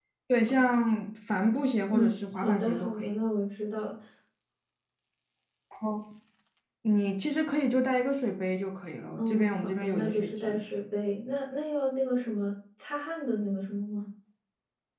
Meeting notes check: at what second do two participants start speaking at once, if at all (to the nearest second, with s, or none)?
2 s